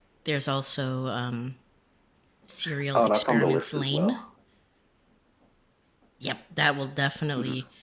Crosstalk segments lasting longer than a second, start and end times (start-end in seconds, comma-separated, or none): 2.9-4.2